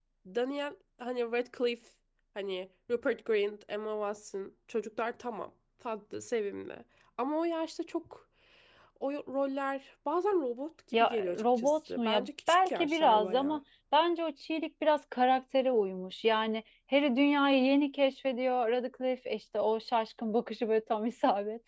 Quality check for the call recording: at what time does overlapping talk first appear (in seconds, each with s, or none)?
10.9 s